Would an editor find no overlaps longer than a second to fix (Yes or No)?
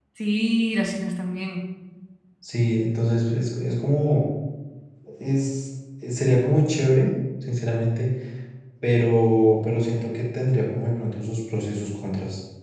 Yes